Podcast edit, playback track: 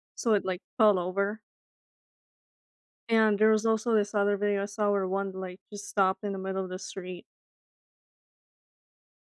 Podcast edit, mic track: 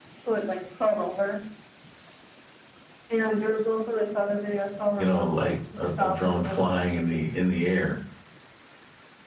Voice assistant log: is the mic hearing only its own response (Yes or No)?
No